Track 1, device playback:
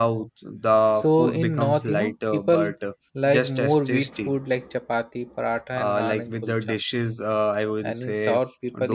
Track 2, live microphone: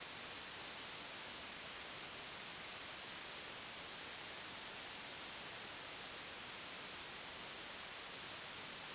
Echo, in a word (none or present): none